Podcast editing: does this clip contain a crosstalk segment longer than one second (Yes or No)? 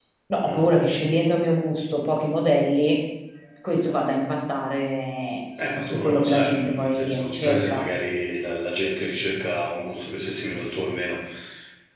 Yes